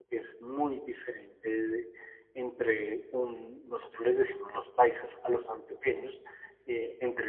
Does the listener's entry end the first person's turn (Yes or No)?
No